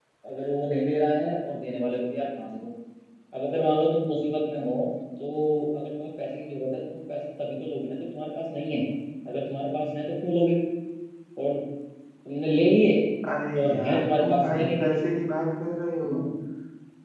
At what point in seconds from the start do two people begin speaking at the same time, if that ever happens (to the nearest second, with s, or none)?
14 s